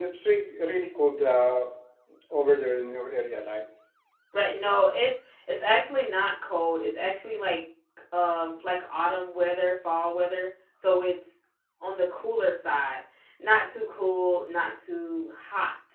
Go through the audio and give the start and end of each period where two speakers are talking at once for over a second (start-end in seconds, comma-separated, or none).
none